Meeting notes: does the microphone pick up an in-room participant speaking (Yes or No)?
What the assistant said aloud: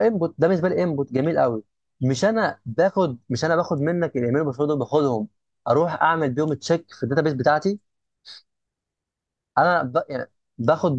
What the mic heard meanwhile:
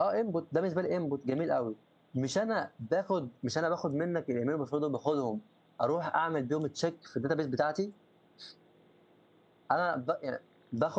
No